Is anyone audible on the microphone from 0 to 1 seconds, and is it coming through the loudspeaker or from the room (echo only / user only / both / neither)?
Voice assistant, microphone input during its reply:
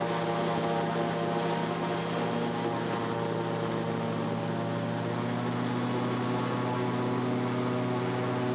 neither